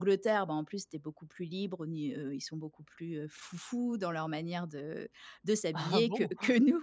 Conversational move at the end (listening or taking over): listening